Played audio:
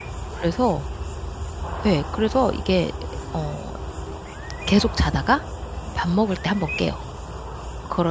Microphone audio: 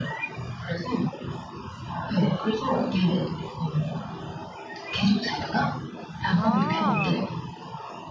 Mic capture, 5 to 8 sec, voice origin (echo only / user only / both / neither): both